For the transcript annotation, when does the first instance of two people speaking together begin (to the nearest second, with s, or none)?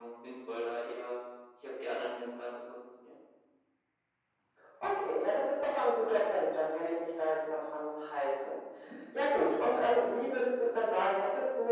none